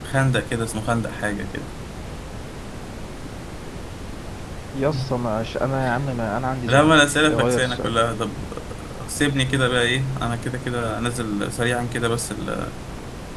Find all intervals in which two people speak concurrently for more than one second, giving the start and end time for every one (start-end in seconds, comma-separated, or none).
6.7-8.0